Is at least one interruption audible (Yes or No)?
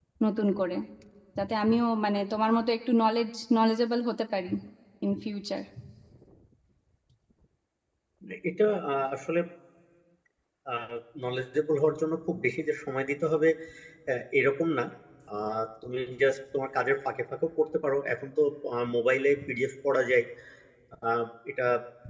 No